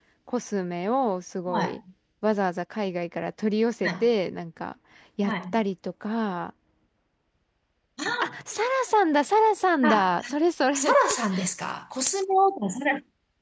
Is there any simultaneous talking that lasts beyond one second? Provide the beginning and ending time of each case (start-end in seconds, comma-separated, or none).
none